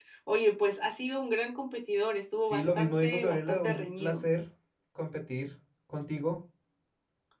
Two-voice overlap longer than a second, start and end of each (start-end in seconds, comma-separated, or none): 2.5-4.2